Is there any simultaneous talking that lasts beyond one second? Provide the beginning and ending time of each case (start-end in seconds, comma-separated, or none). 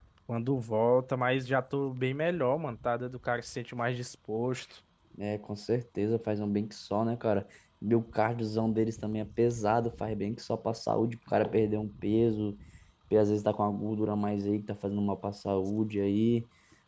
none